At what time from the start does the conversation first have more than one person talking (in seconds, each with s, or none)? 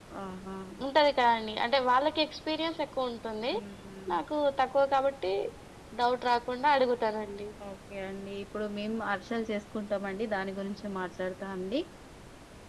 none